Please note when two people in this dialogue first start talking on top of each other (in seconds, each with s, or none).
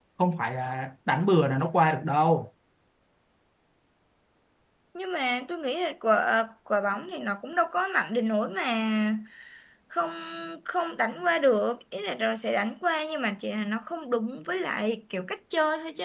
none